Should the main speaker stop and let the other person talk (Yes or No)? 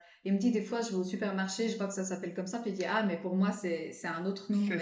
Yes